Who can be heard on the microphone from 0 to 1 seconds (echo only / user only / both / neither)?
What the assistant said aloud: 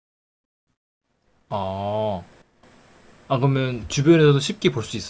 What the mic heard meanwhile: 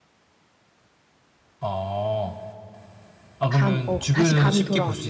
neither